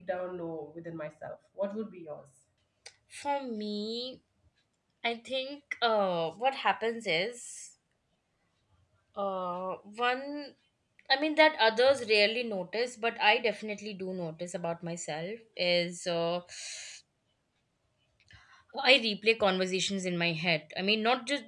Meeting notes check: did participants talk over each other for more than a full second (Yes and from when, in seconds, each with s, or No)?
No